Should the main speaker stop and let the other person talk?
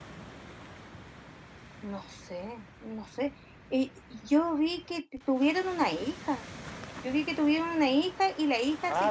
No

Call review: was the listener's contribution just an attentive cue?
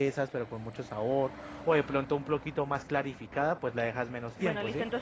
No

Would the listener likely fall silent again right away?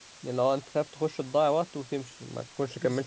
No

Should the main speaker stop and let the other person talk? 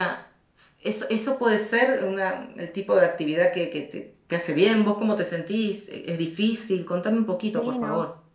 Yes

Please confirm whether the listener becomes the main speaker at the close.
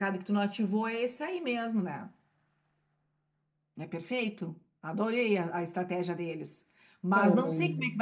No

